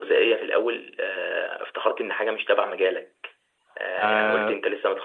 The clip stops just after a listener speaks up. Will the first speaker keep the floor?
Yes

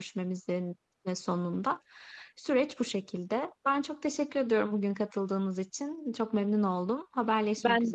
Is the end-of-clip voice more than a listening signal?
Yes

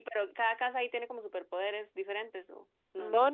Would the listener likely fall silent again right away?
No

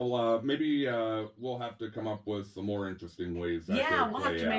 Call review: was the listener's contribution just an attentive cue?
No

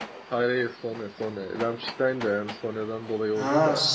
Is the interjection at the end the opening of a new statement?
Yes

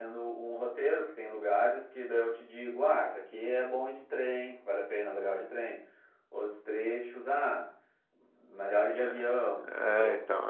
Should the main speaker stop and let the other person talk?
Yes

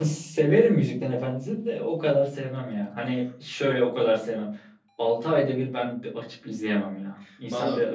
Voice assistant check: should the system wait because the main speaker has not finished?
No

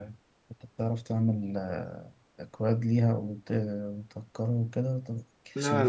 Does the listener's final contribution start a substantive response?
Yes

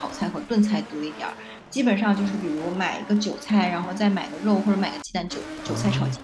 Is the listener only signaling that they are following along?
Yes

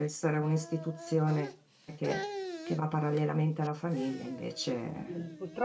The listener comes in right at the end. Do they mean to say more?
Yes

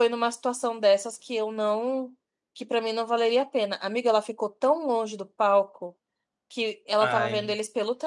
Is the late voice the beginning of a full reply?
No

